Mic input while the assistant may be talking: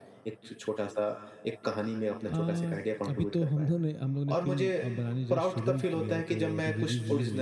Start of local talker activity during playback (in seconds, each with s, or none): 2.3 s